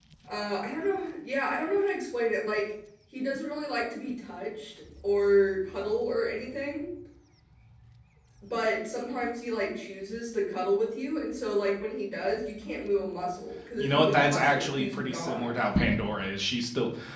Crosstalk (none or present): present